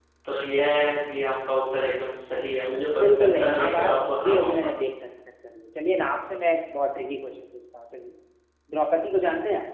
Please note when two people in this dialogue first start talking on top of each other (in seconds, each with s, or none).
2.9 s